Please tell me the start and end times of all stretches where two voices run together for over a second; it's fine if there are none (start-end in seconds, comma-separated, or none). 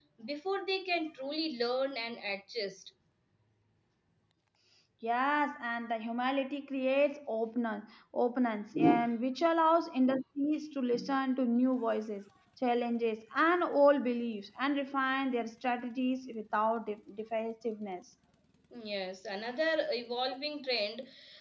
none